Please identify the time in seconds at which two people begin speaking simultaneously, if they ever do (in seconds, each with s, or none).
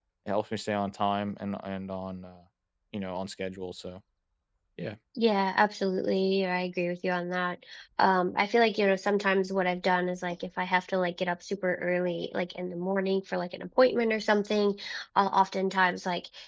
none